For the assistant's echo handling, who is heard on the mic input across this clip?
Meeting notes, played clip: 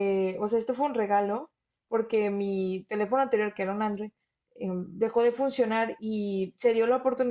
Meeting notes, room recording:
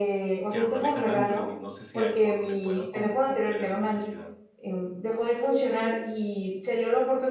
both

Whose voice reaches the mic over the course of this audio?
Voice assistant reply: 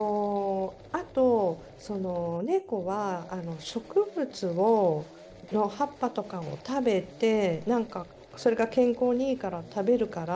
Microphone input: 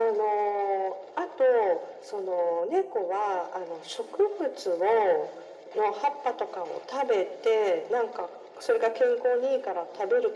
echo only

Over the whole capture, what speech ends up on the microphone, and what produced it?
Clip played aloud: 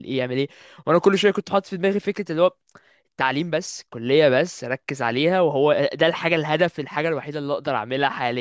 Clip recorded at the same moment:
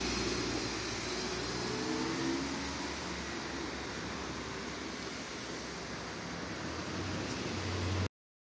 neither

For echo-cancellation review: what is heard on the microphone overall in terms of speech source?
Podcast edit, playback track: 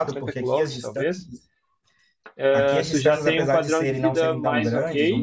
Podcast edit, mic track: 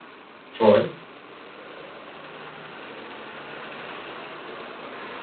user only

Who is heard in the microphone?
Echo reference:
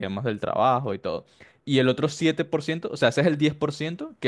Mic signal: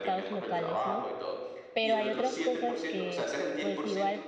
both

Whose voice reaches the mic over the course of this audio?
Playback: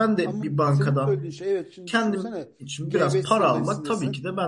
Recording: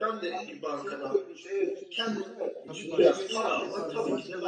both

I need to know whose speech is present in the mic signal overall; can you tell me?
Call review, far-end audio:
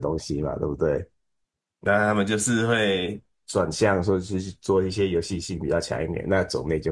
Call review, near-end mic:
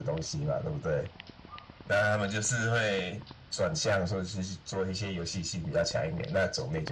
echo only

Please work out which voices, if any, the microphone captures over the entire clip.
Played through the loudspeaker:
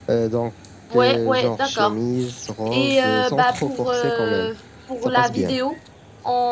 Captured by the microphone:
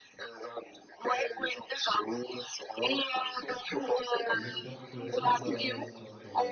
both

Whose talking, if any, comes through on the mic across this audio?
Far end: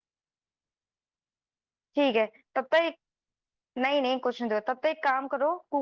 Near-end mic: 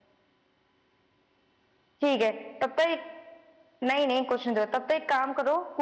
echo only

